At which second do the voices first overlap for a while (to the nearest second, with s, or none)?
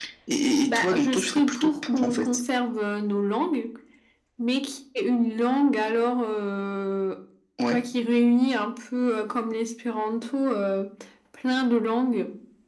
1 s